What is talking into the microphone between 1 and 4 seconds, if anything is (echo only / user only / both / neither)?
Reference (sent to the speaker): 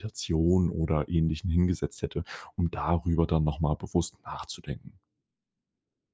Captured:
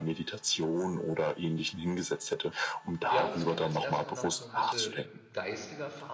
both